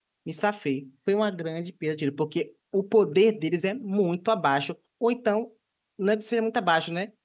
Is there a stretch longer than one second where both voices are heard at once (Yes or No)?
No